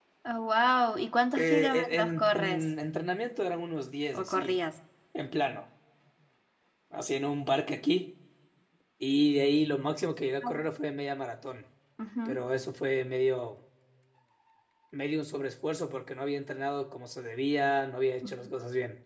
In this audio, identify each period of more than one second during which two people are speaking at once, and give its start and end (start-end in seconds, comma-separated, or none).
1.4-2.6